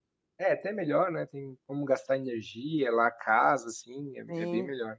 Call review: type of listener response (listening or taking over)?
taking over